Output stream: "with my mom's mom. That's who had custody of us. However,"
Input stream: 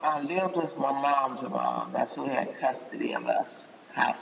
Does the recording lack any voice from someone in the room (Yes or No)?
Yes